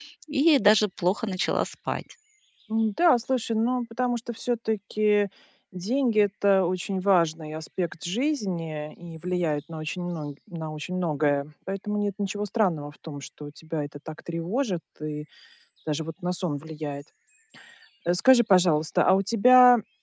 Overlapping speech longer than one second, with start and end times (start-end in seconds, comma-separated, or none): none